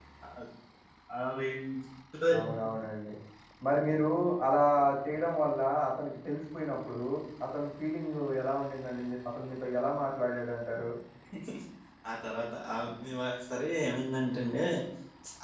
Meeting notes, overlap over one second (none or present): none